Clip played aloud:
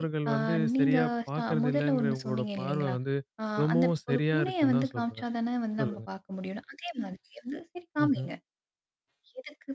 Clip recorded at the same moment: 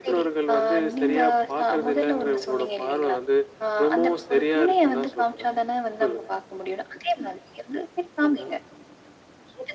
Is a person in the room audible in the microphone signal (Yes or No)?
No